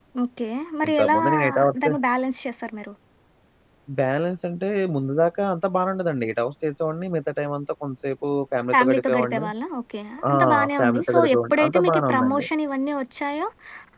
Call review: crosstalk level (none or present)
present